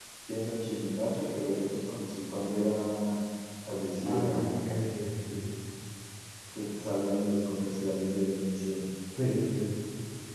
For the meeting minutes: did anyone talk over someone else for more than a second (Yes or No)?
No